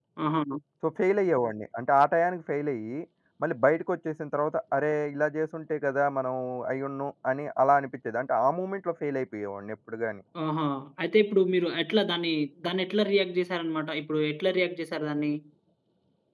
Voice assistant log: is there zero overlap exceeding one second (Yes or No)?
Yes